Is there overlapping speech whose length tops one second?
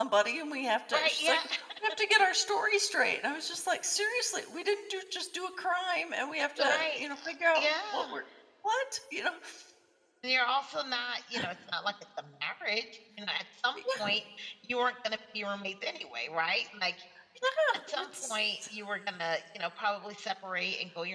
Yes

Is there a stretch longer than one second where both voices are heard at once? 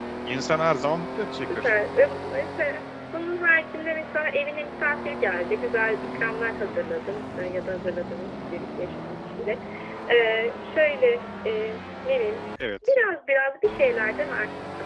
No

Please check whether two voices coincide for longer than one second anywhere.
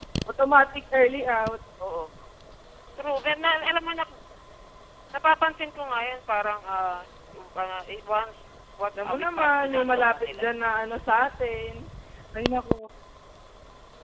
Yes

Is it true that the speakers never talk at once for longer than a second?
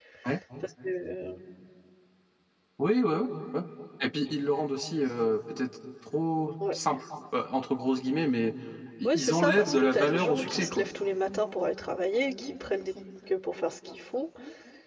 No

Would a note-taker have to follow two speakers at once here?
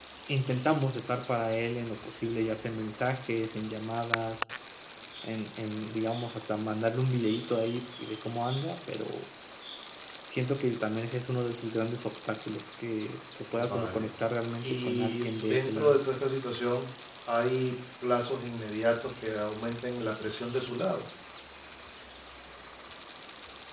Yes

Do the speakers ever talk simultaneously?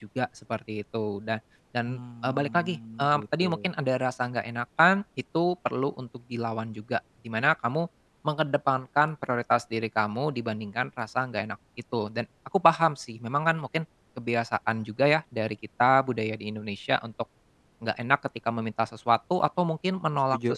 Yes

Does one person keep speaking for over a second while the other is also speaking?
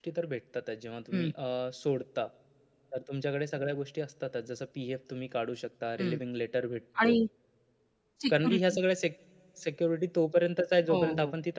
No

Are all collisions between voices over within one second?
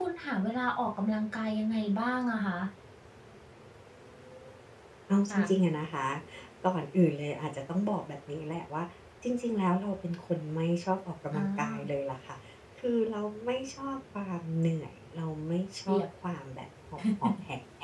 Yes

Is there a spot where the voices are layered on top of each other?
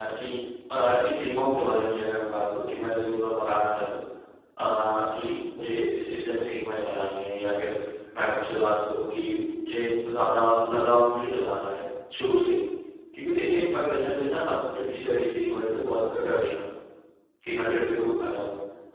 No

